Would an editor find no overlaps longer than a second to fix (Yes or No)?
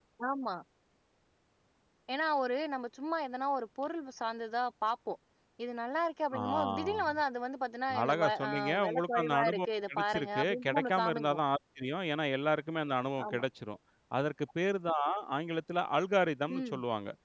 No